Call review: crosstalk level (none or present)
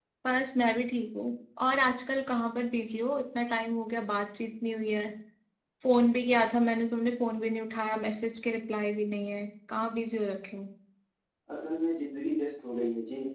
none